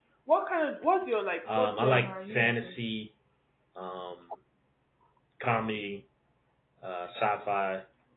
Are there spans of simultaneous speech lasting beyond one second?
Yes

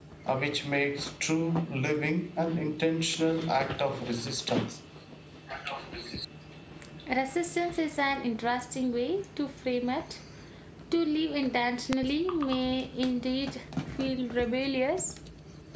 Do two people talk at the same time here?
No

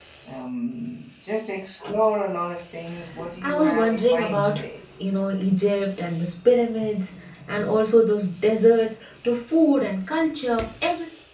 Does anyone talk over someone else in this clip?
Yes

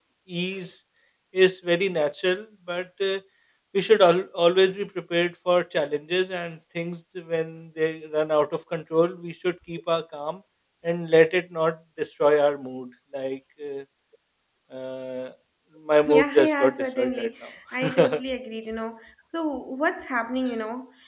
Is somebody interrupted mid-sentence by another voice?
Yes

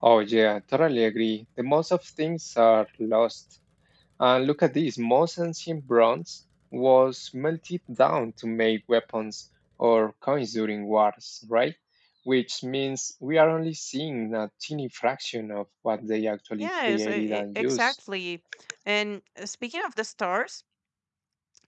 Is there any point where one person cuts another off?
Yes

